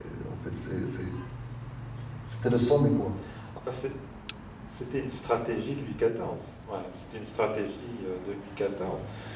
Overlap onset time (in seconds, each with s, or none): none